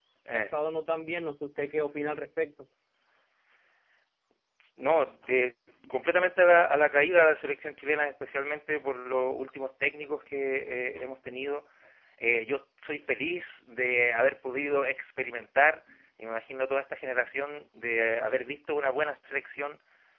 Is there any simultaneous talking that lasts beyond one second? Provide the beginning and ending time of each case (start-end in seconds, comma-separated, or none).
none